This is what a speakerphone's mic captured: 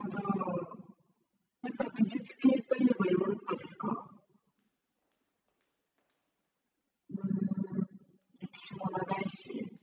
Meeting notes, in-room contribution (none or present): none